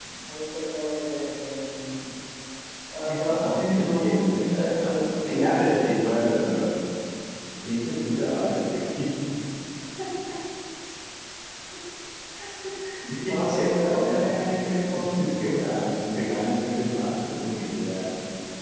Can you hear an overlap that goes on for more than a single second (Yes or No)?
Yes